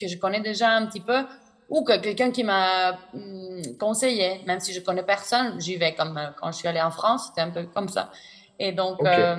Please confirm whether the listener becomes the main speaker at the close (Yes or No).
No